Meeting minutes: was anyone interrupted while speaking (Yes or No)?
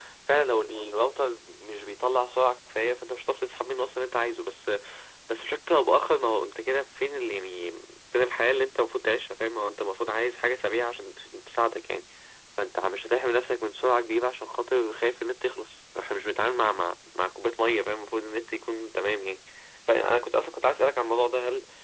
No